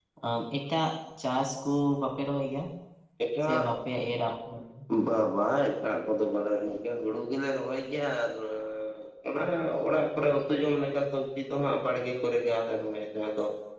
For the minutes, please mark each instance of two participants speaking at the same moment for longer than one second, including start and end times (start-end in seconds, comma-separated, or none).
none